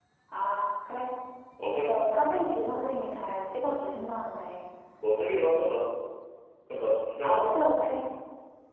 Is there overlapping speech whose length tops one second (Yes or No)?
No